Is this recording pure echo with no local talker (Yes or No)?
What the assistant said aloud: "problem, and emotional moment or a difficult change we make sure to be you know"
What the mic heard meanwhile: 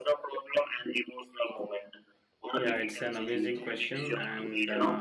No